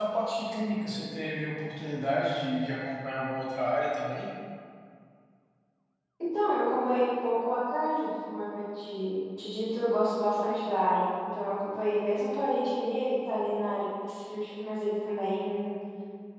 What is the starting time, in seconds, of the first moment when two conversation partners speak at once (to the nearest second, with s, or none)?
none